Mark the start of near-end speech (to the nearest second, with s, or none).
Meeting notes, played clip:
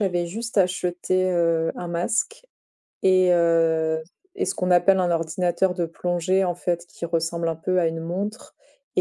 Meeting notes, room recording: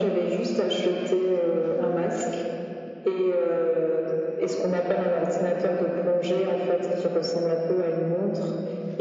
none